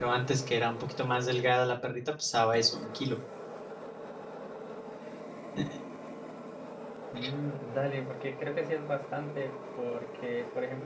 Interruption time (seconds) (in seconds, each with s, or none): none